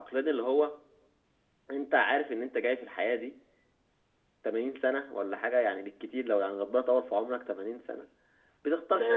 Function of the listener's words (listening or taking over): taking over